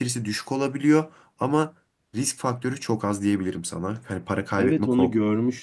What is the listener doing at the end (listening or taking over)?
taking over